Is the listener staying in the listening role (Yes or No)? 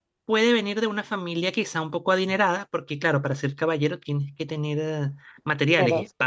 Yes